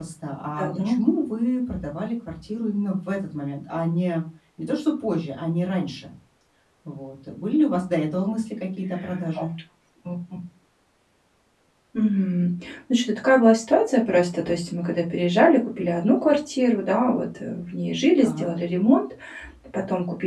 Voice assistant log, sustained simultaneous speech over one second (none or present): none